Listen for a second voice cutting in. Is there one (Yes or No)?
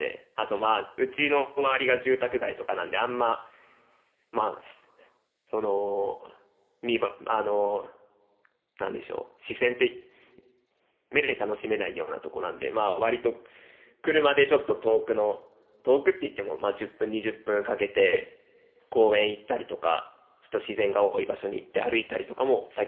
No